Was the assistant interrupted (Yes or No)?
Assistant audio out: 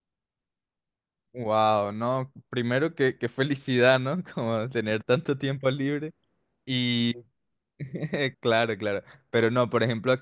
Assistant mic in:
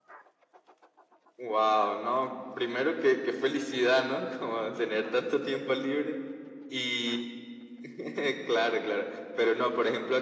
No